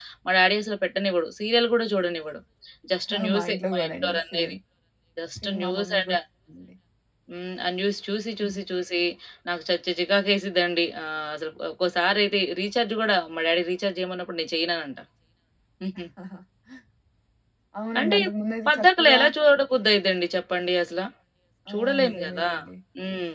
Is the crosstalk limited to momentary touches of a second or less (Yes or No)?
No